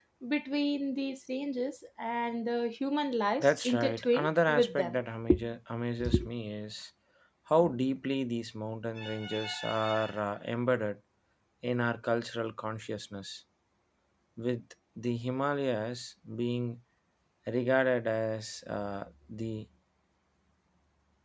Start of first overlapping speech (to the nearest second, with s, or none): 3 s